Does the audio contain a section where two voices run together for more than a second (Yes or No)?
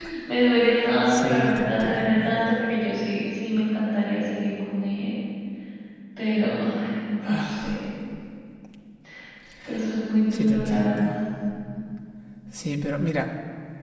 Yes